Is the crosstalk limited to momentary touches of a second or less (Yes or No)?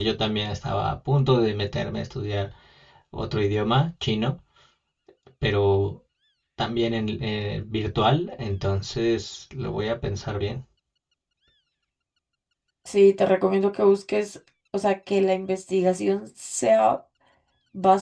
Yes